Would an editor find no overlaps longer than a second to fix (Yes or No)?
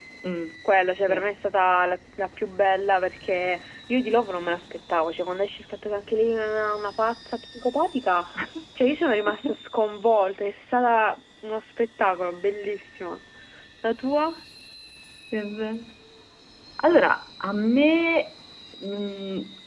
Yes